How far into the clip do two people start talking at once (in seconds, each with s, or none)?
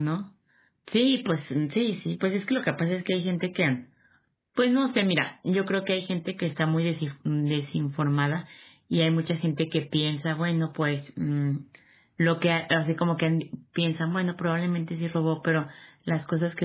none